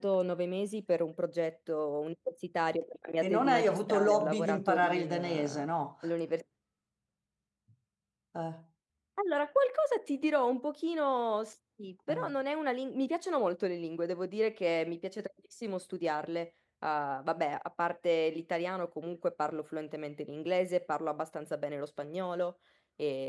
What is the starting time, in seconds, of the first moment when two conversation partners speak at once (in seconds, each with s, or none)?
3.2 s